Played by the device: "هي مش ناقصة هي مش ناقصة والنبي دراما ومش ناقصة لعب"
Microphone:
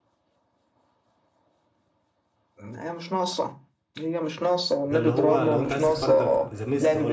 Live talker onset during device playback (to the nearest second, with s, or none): 5 s